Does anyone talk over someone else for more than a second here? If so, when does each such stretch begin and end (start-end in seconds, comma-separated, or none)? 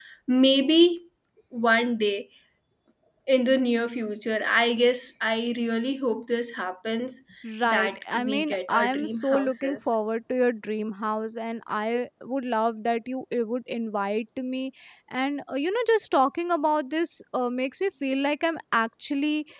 7.7-9.9